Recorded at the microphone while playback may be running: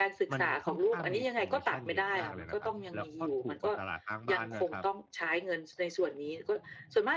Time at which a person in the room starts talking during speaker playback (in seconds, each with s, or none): 0.3 s